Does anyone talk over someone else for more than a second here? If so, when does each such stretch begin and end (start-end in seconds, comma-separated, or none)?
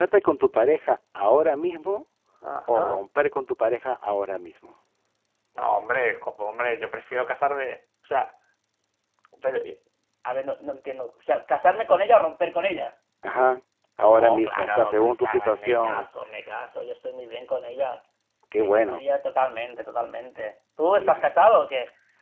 14.1-16.1